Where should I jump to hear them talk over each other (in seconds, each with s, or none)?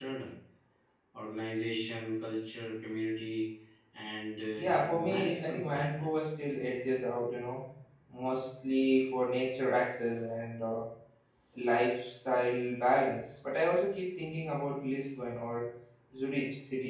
4.6 s